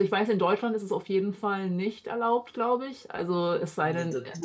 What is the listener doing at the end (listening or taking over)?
taking over